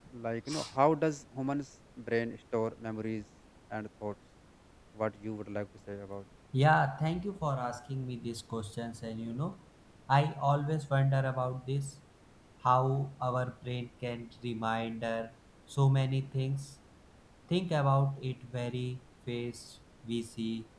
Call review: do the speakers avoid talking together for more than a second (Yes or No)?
Yes